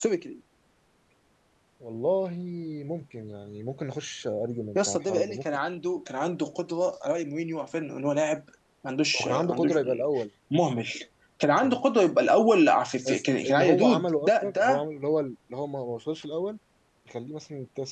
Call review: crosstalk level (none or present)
present